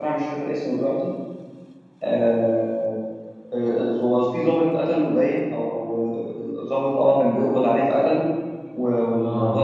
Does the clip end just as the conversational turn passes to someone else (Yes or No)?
No